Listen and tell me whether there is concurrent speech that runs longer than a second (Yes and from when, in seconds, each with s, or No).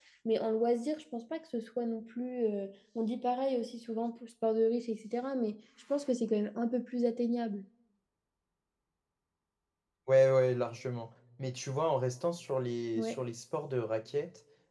No